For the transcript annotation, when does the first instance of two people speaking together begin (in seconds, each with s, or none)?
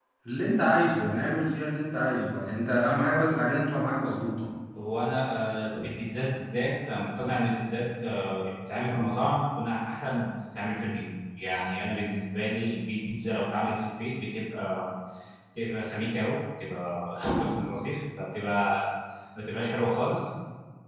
none